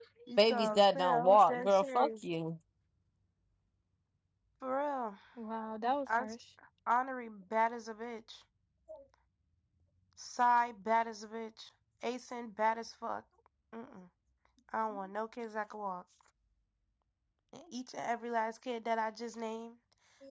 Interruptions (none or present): present